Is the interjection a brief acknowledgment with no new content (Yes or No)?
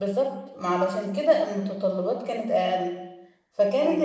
Yes